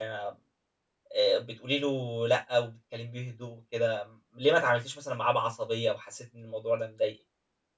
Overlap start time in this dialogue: none

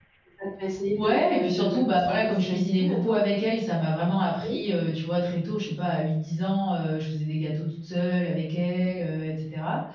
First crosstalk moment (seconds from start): 0.9 s

